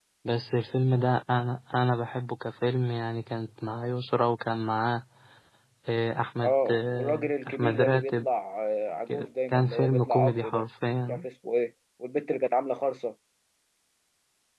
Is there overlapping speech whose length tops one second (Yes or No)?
Yes